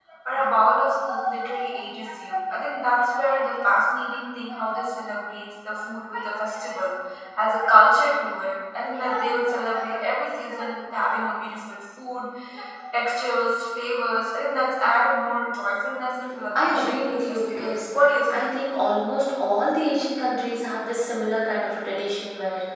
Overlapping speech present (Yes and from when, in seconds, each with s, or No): Yes, from 16.3 s